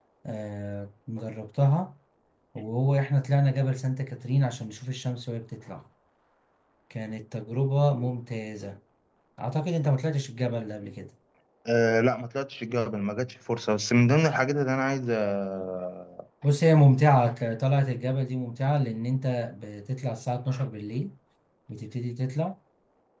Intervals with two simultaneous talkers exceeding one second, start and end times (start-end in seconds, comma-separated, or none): none